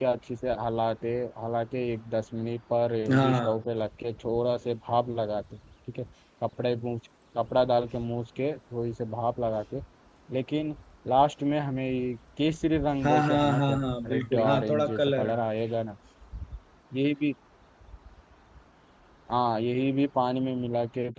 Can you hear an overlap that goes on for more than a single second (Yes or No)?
Yes